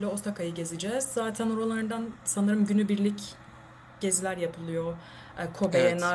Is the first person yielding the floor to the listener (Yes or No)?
No